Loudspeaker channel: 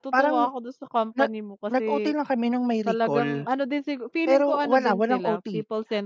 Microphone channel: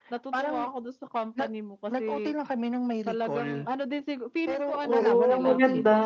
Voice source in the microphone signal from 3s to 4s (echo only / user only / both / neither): echo only